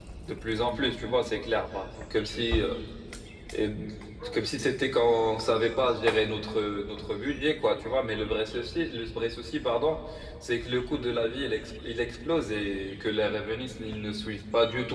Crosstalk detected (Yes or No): No